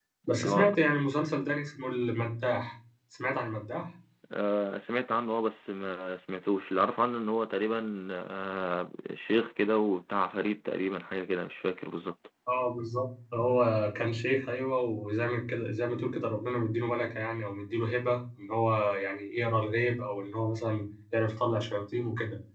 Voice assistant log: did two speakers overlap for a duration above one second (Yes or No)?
No